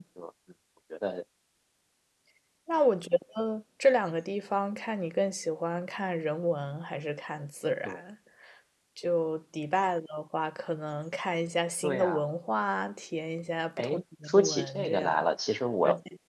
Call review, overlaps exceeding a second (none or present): present